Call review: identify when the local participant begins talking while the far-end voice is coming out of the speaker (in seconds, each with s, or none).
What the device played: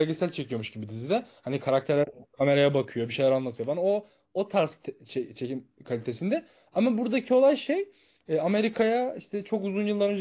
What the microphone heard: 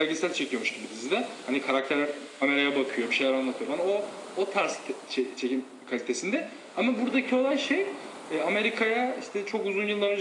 none